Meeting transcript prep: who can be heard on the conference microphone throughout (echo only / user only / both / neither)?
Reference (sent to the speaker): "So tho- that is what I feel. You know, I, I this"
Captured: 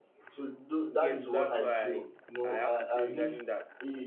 both